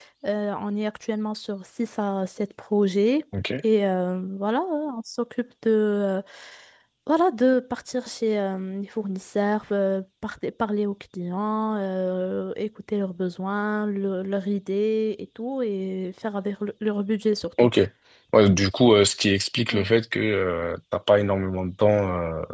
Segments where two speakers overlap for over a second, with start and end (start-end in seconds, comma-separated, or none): none